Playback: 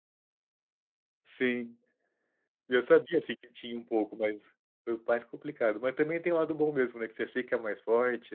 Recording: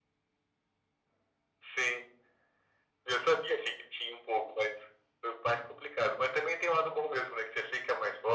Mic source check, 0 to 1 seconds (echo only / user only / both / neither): neither